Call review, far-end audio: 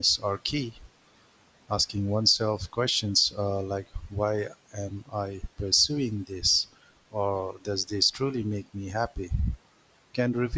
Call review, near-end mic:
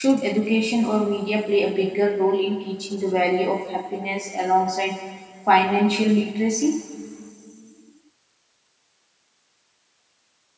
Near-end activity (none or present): present